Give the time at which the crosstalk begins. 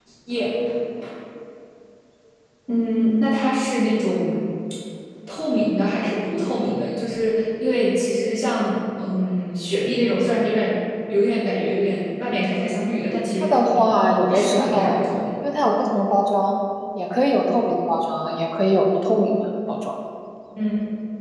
13 s

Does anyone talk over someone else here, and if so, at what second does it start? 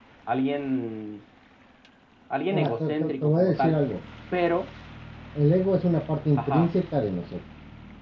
3 s

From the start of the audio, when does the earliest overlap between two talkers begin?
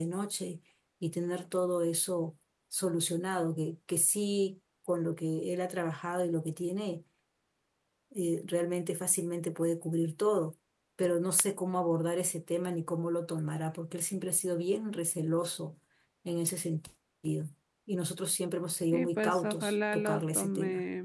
19 s

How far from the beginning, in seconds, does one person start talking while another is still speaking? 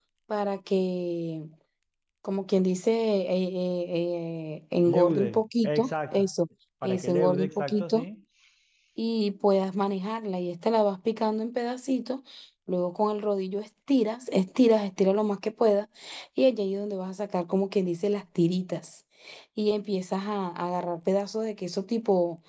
5 s

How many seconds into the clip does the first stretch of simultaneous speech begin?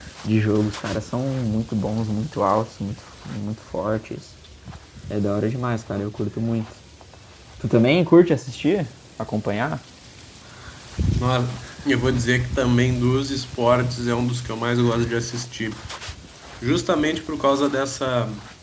none

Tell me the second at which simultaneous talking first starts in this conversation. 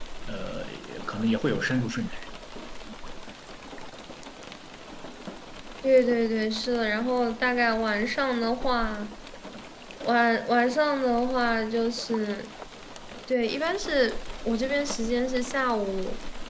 none

